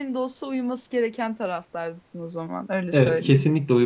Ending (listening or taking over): taking over